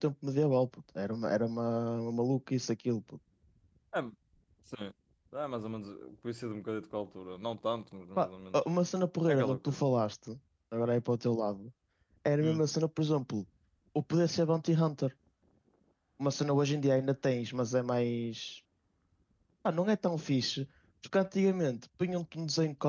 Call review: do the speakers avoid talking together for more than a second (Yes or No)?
Yes